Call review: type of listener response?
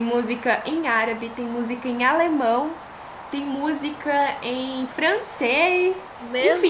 listening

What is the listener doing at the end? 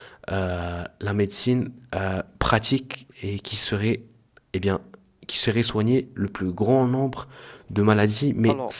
listening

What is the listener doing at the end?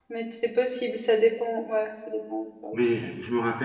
taking over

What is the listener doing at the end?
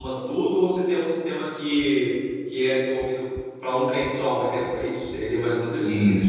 taking over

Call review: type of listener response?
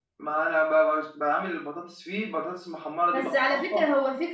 taking over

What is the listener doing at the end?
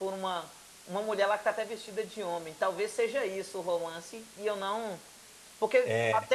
listening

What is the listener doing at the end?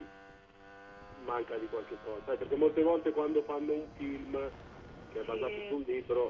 listening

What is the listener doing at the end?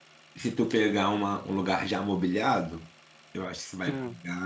listening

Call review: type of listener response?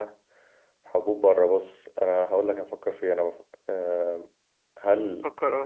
listening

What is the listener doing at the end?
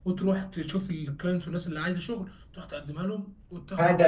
taking over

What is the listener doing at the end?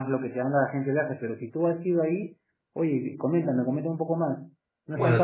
taking over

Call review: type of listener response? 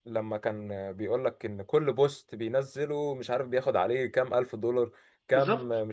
listening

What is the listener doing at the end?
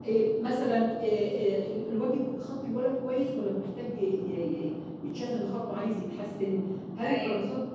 listening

